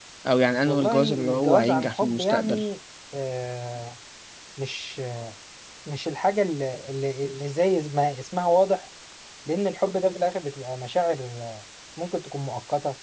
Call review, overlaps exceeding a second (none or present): present